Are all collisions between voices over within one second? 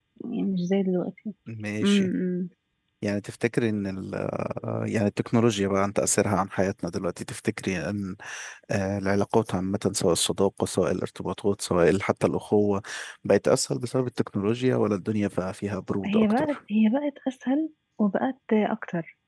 Yes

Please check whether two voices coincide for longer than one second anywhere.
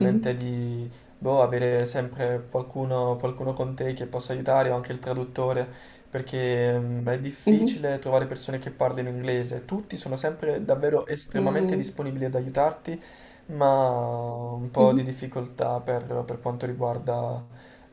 No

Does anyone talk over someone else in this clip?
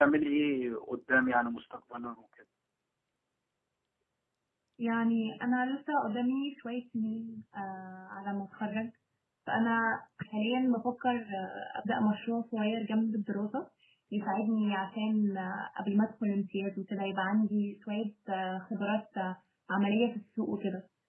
No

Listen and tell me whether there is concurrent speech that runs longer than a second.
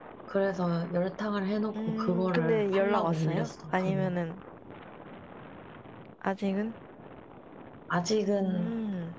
Yes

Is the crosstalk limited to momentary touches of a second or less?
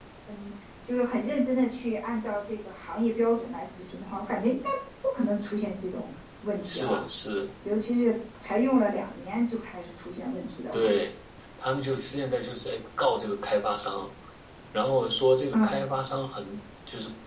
Yes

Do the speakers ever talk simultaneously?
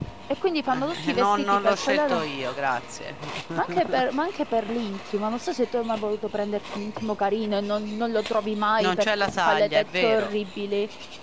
Yes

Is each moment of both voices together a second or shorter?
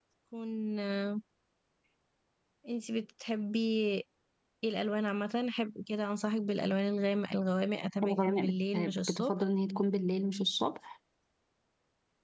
No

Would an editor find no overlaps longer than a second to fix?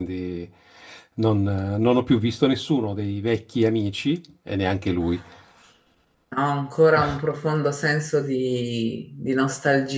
Yes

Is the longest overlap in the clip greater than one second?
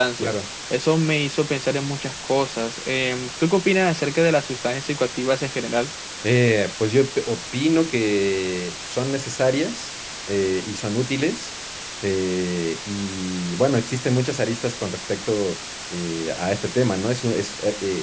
No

